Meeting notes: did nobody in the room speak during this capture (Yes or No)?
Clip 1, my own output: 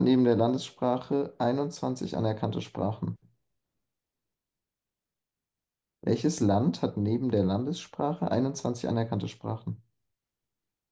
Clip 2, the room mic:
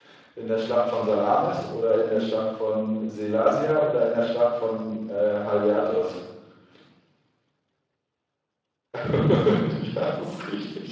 No